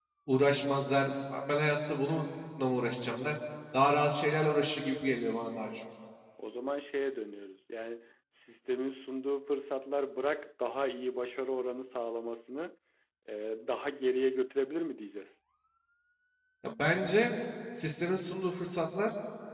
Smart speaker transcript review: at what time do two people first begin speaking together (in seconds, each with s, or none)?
none